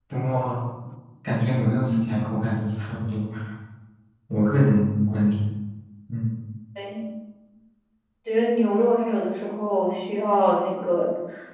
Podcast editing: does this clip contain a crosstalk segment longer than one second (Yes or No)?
No